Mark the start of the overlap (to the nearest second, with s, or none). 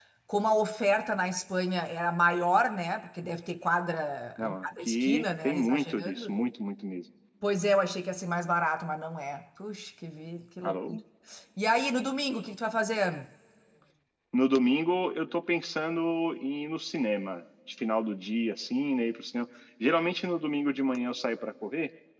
4 s